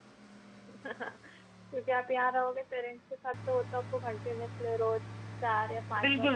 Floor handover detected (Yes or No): Yes